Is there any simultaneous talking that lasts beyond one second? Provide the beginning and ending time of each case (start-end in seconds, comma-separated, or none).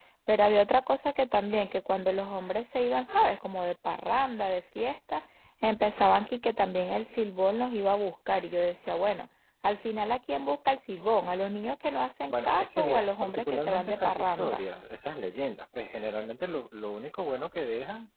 12.3-14.6